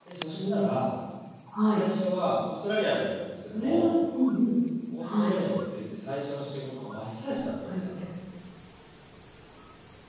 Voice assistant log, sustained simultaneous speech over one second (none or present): none